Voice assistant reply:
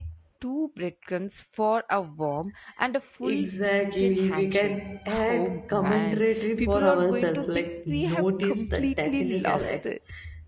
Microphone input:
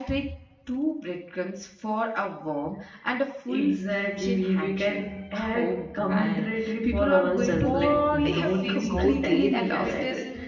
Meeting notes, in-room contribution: present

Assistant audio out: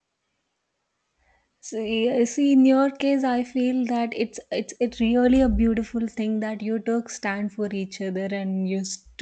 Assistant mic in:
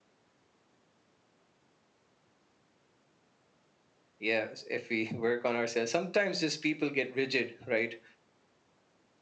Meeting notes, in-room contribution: present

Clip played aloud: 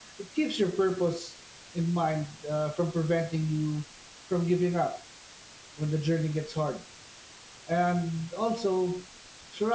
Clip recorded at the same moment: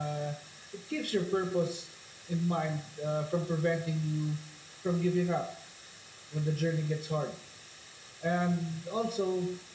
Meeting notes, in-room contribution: none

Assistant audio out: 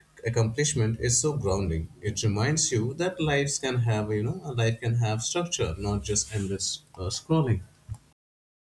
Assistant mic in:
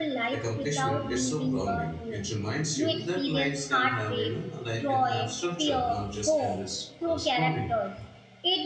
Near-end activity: present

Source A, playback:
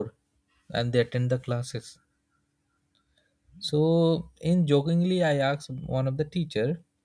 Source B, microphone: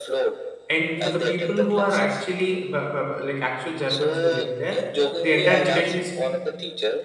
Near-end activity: present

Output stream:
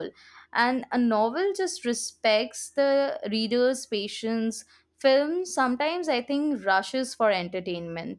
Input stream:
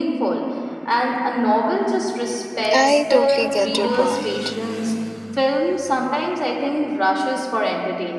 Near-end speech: present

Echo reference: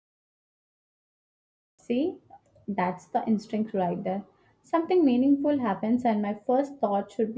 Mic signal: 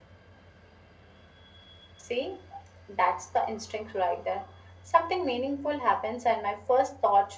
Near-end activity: none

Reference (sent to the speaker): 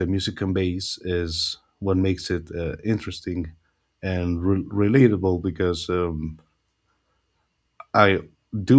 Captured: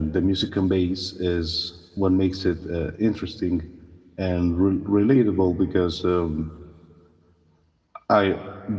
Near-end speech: none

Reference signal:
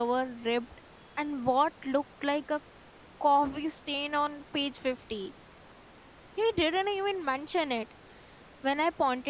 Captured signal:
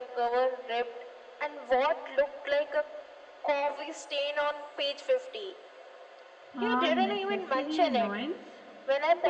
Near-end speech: present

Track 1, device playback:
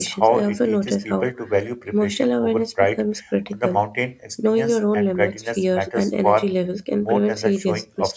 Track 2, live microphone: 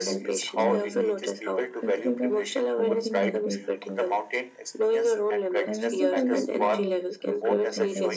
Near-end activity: present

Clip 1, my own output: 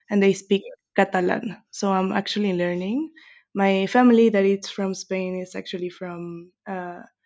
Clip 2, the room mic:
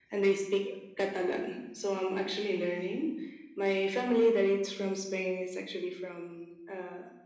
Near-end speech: none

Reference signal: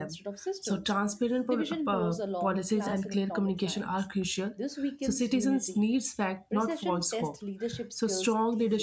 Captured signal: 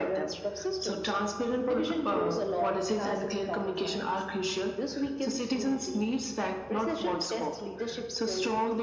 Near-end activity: none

